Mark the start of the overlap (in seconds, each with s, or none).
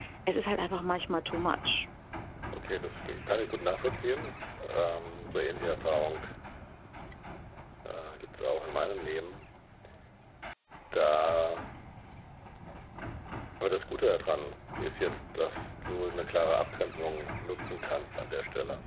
none